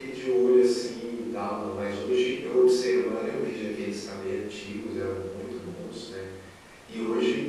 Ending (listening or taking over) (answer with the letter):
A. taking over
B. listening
B